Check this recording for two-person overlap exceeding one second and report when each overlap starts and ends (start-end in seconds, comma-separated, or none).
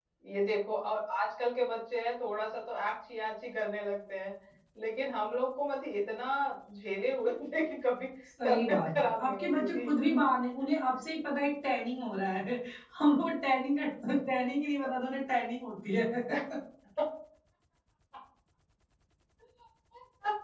8.4-9.9